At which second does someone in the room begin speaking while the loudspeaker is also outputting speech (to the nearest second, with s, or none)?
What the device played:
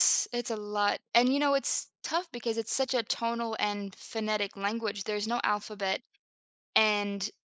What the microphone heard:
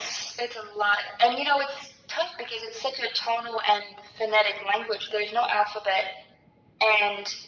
none